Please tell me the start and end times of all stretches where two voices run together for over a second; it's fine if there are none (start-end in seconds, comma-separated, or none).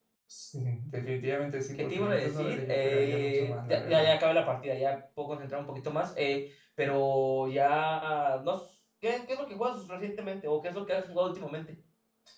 1.8-4.1